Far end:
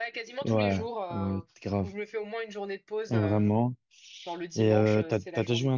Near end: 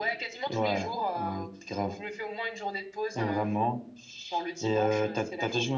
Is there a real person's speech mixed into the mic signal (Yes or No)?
No